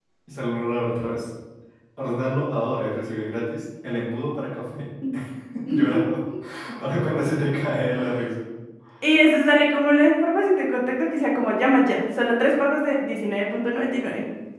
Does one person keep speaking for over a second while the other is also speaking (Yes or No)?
No